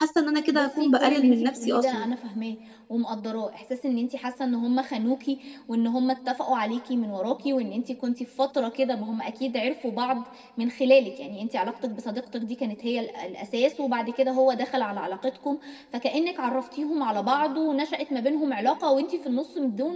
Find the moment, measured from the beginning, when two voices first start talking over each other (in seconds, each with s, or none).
0.5 s